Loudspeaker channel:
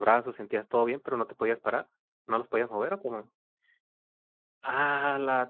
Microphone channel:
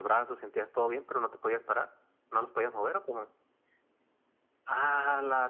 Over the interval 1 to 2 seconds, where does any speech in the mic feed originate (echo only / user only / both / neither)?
echo only